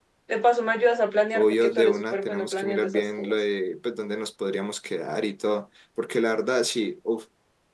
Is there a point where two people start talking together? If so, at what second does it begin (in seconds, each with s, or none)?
1.3 s